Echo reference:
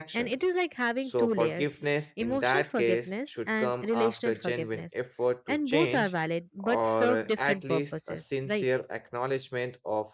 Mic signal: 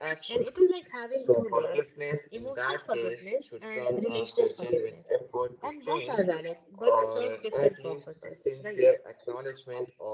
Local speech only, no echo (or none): none